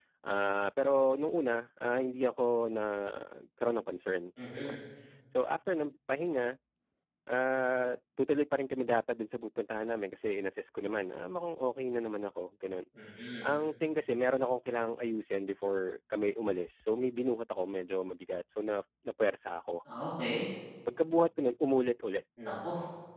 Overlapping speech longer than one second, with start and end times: none

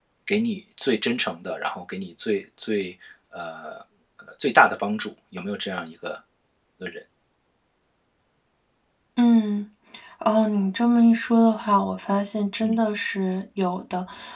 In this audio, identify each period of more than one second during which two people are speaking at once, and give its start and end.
none

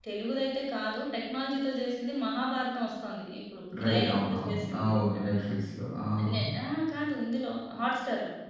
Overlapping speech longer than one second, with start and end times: 3.8-5.5

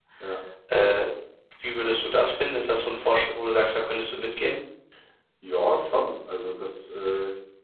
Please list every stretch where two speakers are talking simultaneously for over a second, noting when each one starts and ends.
none

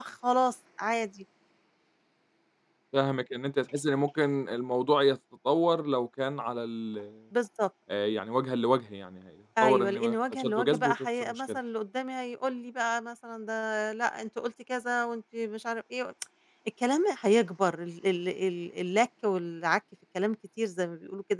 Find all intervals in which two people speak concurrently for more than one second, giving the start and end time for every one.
9.6-11.6

